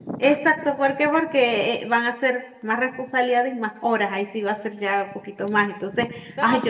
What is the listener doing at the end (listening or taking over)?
taking over